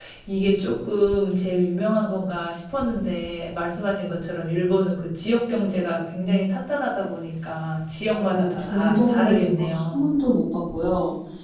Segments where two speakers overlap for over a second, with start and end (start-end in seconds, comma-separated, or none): 8.1-10.1